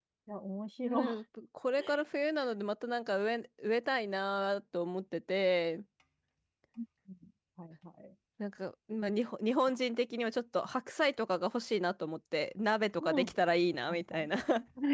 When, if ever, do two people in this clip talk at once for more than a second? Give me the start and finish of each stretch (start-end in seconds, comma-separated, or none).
none